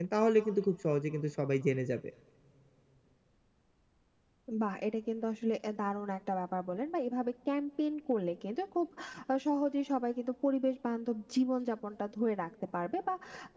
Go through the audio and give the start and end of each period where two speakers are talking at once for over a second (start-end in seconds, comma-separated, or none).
none